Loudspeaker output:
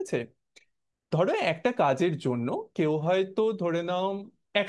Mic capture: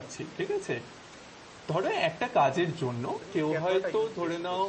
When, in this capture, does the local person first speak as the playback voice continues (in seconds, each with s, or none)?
3.2 s